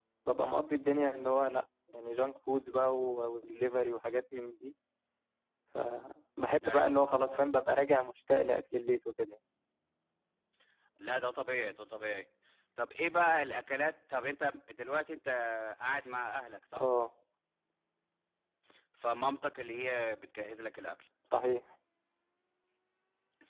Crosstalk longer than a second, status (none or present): none